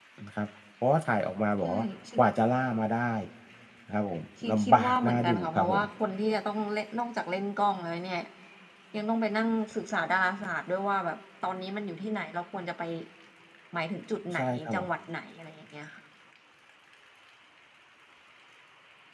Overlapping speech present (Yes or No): Yes